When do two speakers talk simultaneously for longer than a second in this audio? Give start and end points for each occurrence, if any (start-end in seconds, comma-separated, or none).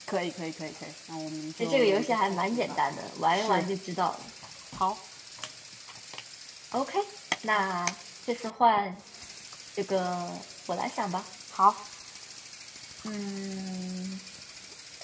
1.6-2.8